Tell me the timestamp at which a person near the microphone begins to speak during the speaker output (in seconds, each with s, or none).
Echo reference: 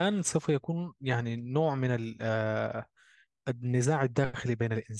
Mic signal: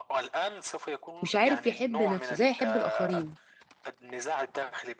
1.2 s